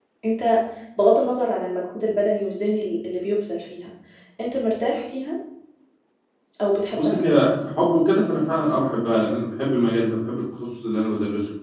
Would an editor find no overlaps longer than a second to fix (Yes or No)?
Yes